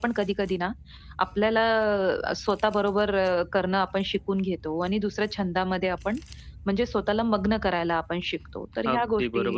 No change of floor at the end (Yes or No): No